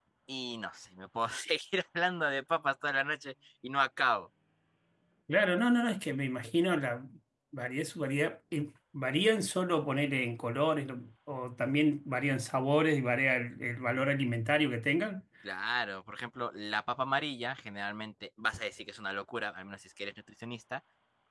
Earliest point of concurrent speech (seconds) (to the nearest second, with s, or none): none